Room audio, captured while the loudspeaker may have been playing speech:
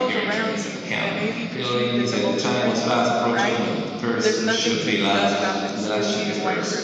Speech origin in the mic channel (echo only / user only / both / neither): both